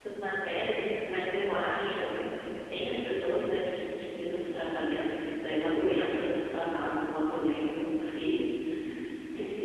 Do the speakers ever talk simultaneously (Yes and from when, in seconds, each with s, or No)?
No